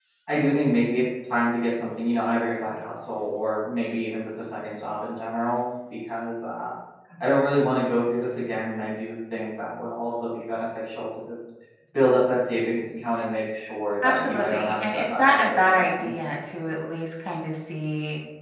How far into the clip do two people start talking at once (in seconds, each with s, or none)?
14.0 s